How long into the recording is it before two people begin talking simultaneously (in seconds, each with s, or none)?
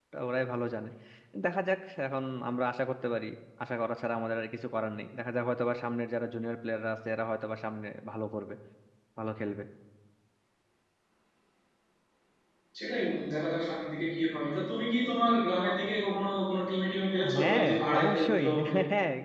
17.2 s